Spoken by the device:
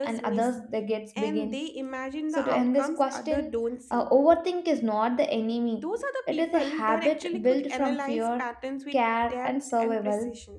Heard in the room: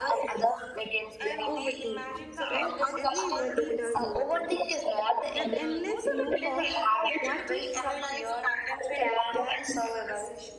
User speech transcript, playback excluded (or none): overthinking right everybody does overthinking the endless loop of what if